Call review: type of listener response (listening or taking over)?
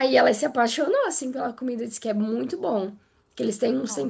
listening